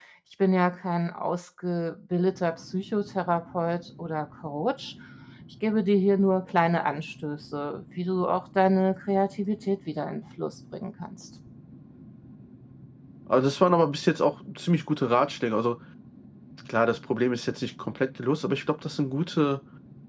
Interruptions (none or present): none